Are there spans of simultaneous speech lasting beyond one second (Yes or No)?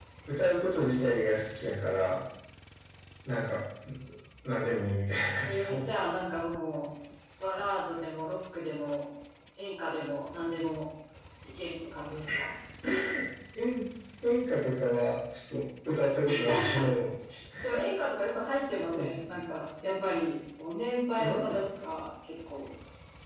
No